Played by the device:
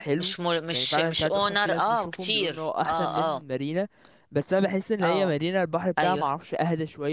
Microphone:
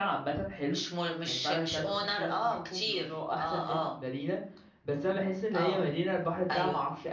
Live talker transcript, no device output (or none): none